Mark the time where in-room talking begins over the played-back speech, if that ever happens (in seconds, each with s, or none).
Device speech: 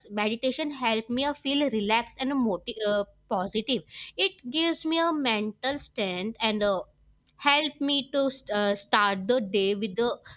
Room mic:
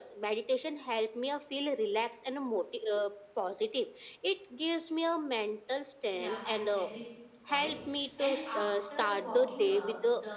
6.1 s